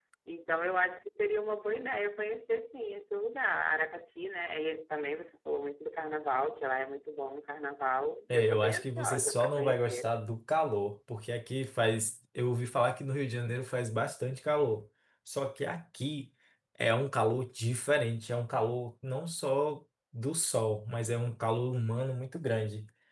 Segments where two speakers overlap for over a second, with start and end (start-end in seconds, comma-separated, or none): 8.3-10.1